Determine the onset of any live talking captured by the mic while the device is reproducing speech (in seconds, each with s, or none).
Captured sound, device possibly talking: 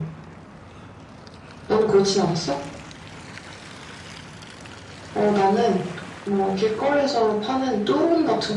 none